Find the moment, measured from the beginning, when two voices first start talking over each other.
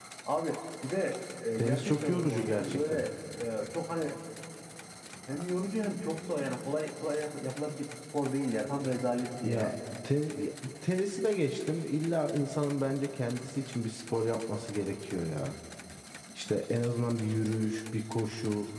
1.6 s

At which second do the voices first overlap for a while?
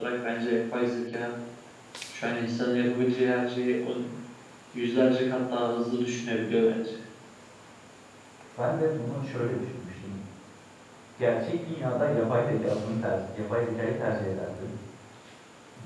none

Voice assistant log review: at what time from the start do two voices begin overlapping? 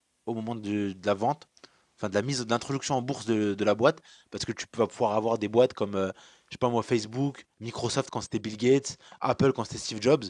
none

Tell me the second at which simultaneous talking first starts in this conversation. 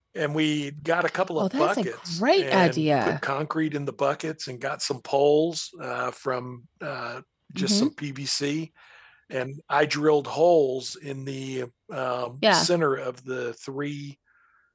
1.4 s

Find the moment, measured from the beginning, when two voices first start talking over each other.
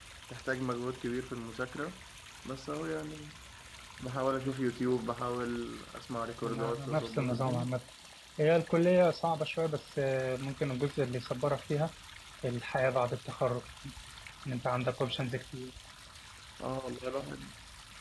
6.4 s

